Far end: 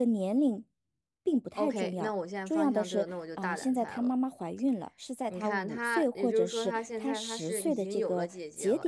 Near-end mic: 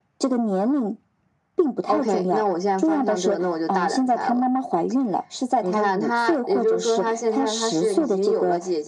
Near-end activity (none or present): none